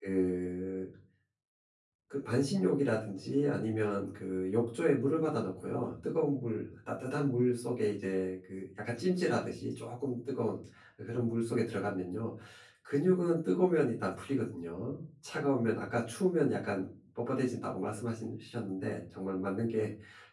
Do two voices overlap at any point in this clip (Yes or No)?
No